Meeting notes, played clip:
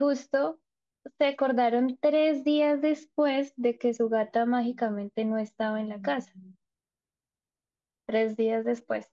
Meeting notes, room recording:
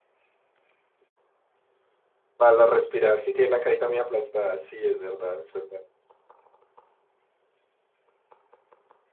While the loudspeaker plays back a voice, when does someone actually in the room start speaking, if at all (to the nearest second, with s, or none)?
2 s